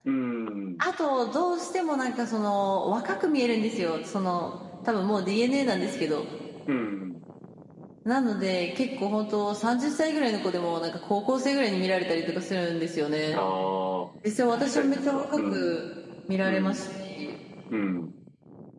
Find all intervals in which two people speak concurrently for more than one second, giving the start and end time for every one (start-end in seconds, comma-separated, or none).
14.5-15.8